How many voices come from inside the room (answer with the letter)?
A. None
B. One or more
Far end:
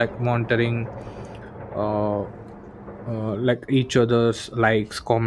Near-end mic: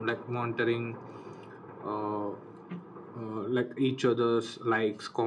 A